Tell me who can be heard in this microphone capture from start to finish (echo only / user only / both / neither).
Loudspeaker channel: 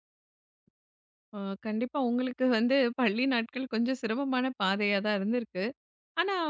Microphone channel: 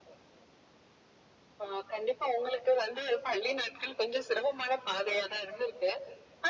echo only